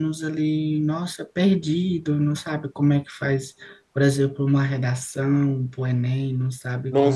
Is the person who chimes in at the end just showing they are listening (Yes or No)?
No